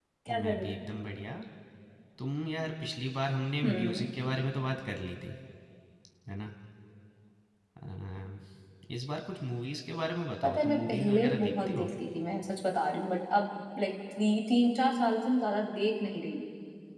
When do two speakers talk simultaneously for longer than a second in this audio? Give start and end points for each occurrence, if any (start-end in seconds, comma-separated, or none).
10.4-11.9